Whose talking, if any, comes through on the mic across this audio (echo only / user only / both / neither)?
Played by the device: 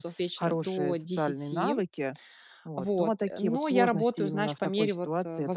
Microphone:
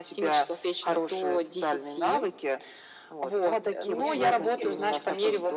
both